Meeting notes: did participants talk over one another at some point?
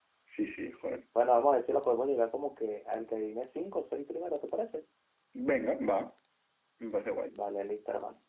No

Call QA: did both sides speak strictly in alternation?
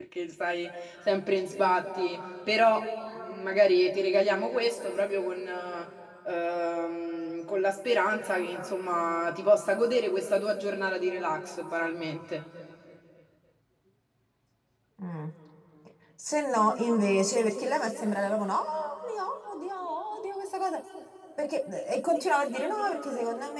Yes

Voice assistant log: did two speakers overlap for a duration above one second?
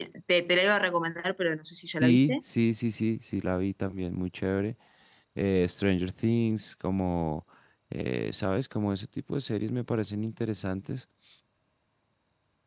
No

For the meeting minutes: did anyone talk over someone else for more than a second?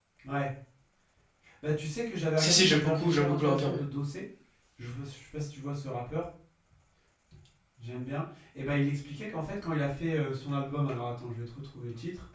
Yes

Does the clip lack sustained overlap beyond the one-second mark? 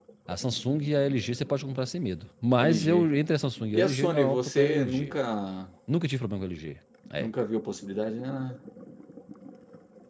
No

